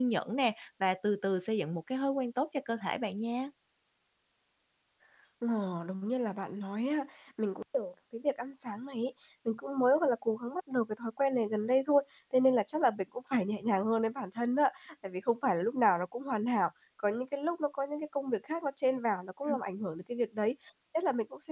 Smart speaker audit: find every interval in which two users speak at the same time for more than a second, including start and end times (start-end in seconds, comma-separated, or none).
none